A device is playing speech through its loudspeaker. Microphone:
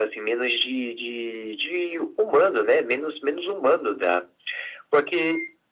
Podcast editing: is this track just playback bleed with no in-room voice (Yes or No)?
Yes